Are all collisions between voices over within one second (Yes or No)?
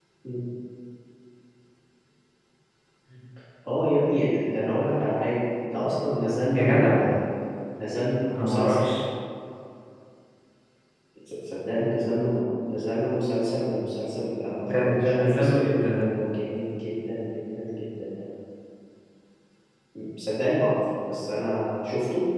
No